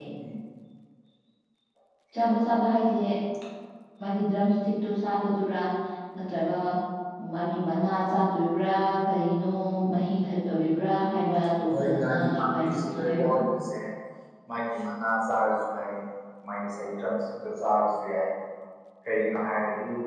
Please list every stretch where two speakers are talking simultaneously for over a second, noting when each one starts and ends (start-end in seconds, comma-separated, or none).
11.7-13.4